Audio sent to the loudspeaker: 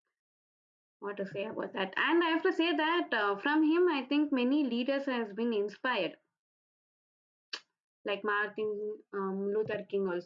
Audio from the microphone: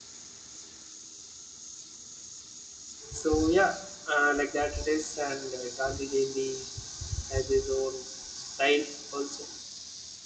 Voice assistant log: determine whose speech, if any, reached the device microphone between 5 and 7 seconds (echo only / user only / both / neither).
user only